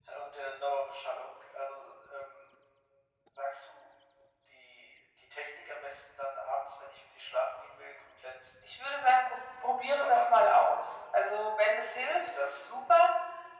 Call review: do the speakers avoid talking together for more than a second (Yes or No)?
Yes